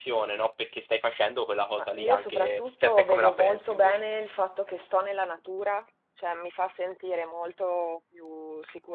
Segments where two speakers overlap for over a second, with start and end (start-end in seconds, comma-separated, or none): 1.8-4.0